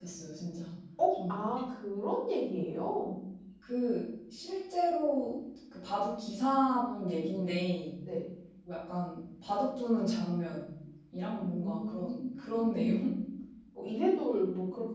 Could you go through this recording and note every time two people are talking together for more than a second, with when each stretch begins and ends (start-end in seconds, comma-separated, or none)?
11.3-13.1